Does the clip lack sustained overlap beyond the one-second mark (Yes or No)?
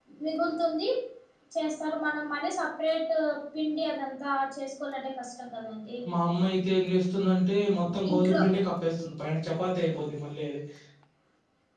Yes